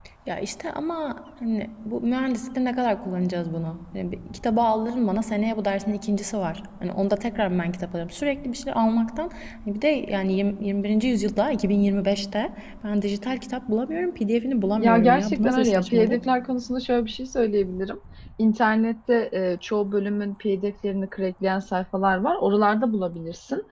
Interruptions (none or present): present